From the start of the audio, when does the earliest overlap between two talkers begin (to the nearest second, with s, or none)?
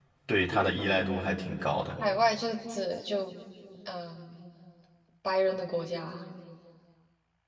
none